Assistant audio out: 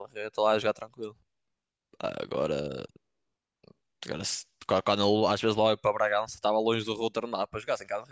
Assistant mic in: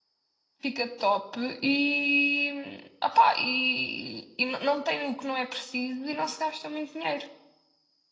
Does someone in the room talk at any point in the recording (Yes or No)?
Yes